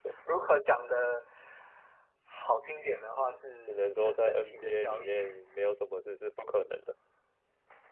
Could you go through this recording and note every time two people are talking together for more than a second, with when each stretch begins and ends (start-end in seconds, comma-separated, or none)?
3.7-5.1